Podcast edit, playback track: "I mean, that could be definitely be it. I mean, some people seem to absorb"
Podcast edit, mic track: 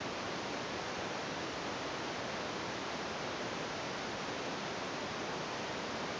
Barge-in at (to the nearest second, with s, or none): none